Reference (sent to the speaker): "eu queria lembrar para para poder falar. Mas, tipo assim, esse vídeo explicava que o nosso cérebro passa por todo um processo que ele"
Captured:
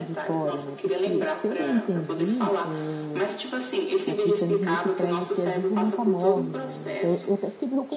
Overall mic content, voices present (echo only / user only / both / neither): both